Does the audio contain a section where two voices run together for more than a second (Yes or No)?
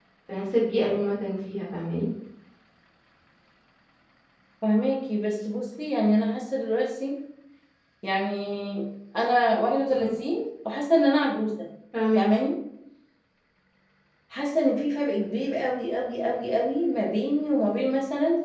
No